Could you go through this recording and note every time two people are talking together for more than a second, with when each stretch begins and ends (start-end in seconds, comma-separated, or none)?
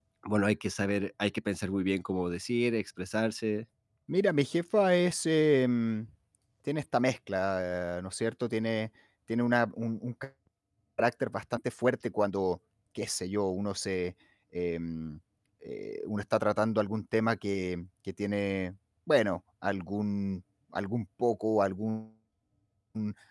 none